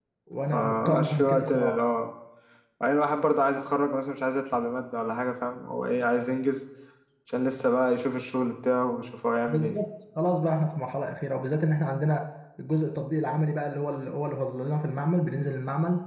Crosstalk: present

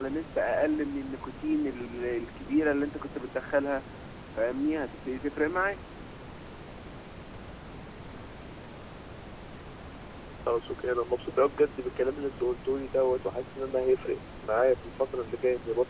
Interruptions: none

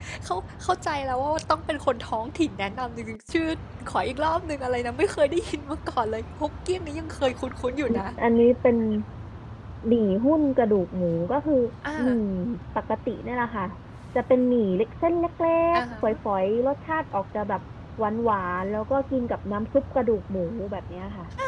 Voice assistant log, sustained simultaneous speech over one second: none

